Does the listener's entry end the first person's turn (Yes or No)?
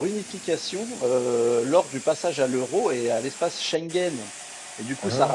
No